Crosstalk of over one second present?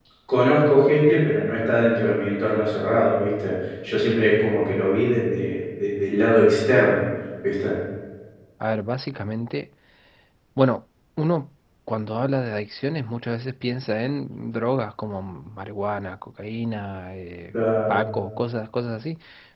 No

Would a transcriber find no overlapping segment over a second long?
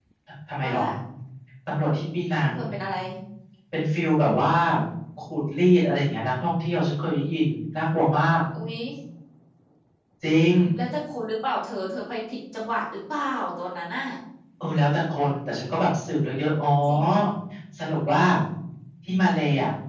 Yes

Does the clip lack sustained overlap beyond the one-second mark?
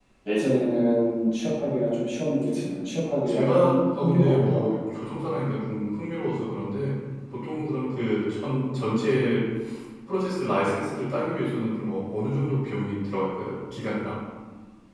No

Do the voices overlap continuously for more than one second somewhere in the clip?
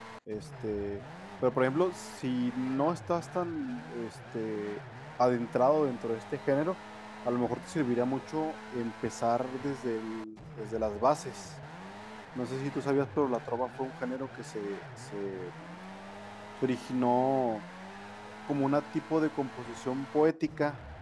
No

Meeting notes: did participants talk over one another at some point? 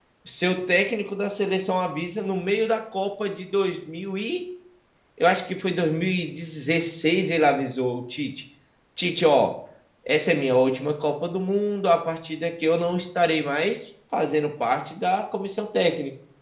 No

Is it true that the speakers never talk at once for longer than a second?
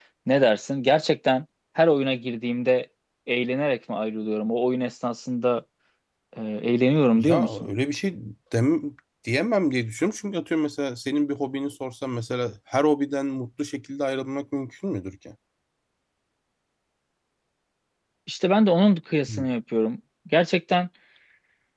Yes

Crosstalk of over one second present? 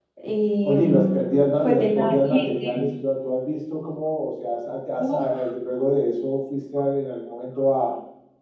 Yes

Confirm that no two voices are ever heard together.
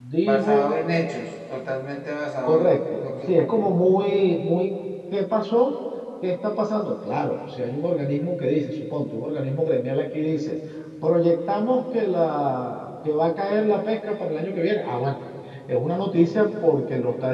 No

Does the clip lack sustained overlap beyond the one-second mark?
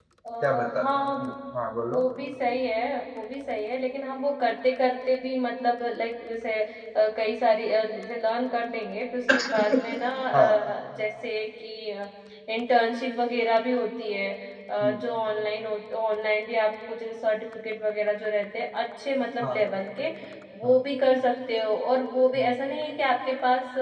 Yes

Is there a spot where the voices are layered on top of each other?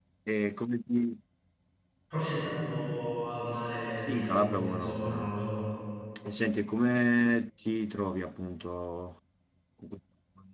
Yes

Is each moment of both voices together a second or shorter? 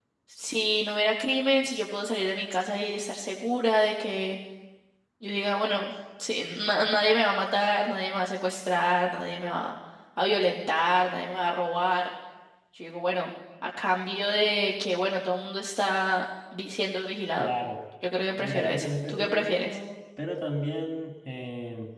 No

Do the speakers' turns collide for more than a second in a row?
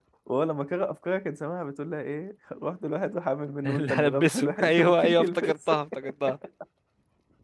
Yes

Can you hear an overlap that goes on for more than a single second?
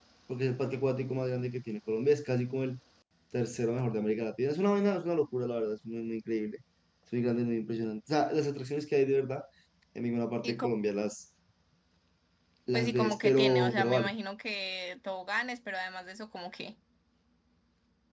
Yes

